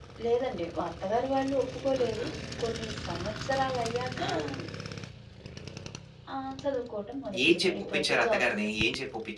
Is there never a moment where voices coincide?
No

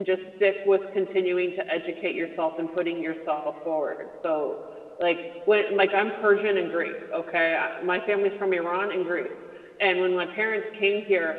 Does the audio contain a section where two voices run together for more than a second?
No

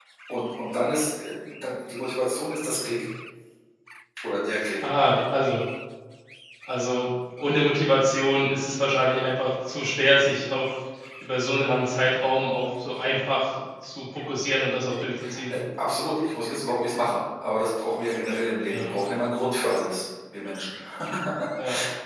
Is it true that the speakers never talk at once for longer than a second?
Yes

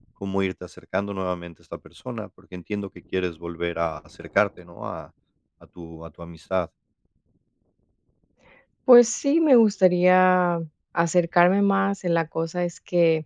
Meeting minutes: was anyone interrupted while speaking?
No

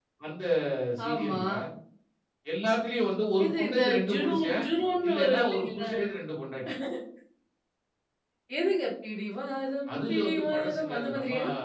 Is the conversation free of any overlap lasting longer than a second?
No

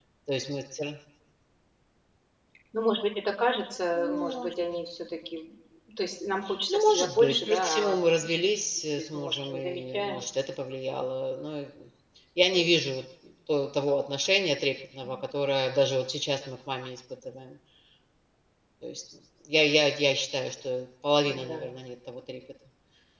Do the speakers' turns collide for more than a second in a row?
Yes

